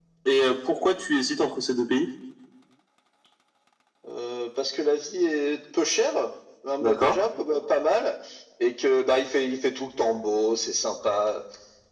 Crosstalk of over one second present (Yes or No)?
No